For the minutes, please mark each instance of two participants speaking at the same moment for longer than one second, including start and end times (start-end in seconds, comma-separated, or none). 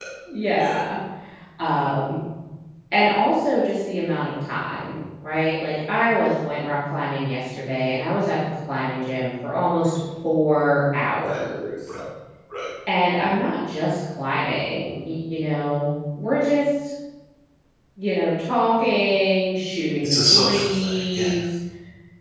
20.0-21.3